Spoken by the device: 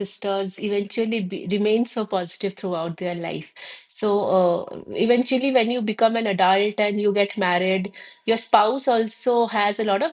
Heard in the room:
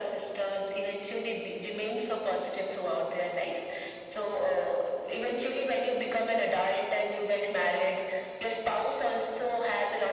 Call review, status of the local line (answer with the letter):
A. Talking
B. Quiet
B